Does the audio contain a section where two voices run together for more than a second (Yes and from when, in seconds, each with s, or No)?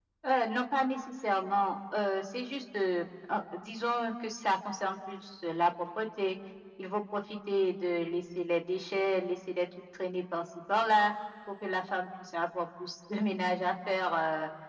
No